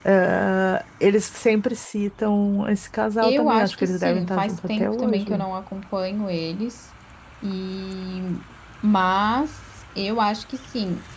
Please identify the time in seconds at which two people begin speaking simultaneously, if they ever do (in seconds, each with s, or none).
3.2 s